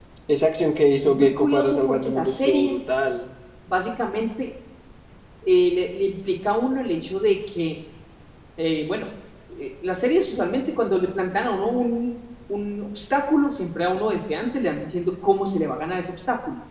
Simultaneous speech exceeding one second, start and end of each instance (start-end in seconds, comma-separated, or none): 1.0-2.8